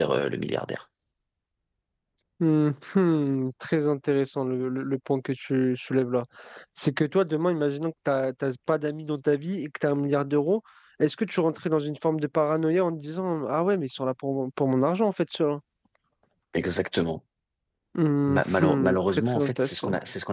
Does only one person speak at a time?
No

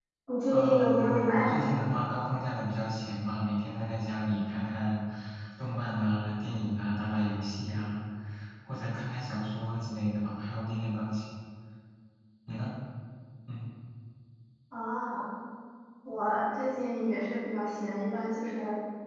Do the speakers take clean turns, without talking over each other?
No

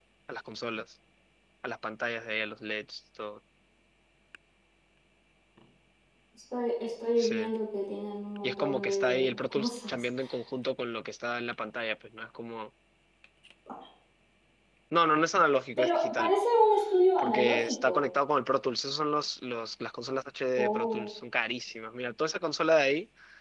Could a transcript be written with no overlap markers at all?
No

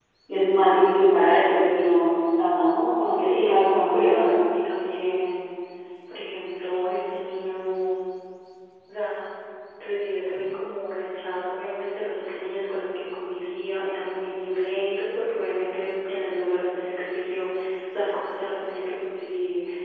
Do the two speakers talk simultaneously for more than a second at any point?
Yes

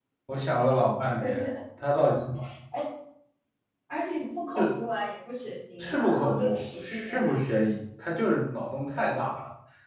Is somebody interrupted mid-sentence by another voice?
Yes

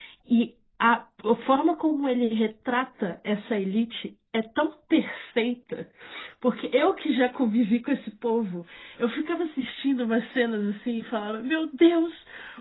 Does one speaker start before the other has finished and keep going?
No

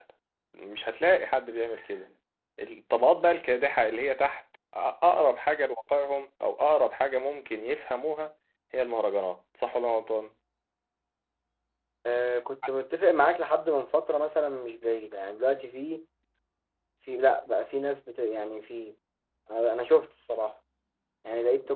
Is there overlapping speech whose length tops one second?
No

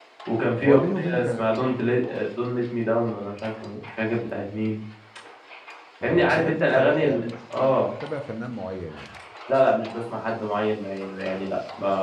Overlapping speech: Yes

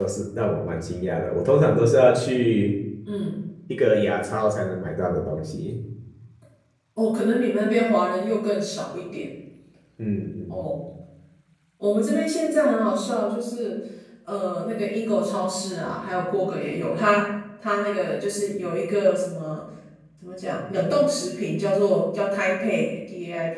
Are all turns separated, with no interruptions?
Yes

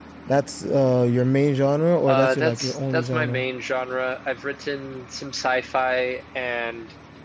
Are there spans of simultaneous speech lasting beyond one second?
Yes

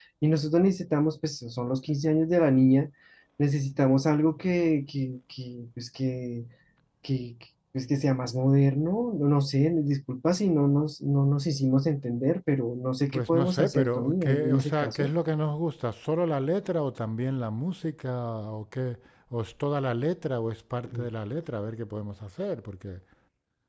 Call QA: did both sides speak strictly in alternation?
No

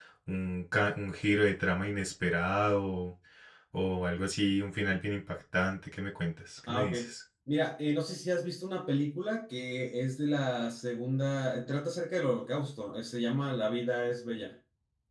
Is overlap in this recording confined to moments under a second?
Yes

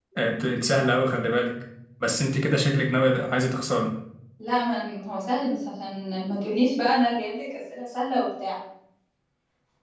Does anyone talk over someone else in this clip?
No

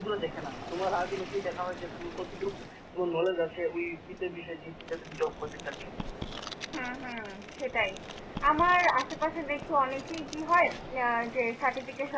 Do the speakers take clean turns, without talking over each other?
Yes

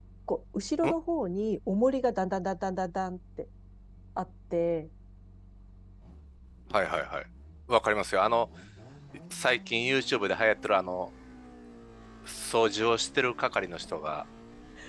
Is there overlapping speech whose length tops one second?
No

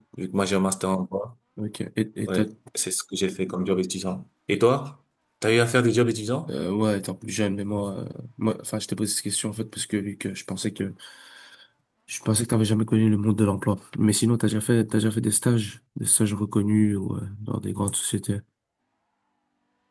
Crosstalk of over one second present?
No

